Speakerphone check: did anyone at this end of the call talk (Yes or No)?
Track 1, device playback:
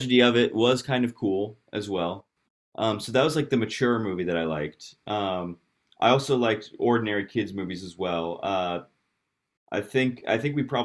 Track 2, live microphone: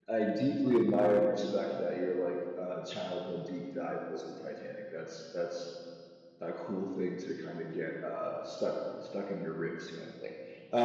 Yes